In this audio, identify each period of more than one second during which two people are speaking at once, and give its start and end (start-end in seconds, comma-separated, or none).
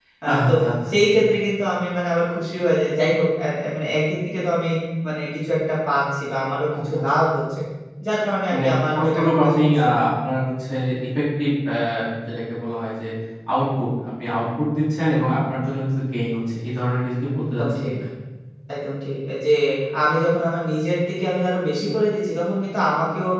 8.5-10.0